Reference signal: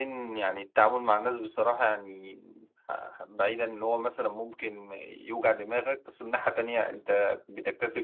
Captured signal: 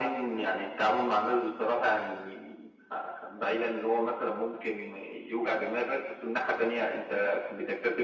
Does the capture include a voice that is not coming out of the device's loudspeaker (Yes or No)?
No